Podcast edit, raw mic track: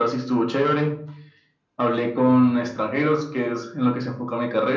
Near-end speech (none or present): none